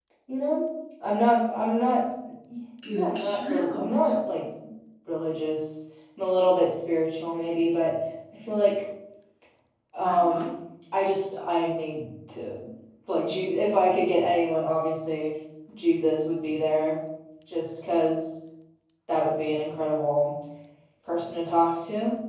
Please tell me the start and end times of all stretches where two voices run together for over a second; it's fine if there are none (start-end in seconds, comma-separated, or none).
2.9-4.2